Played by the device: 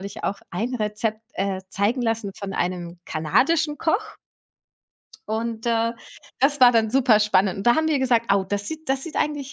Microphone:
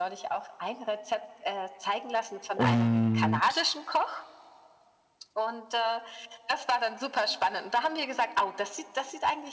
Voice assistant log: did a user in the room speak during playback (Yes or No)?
Yes